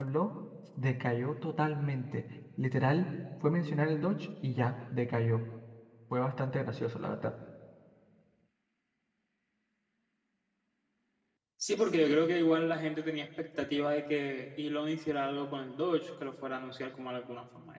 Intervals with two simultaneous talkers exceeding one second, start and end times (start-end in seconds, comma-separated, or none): none